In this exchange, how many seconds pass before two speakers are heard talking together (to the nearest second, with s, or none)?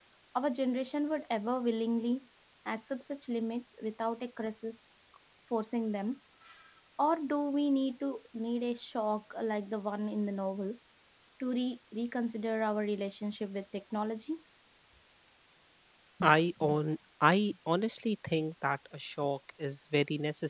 none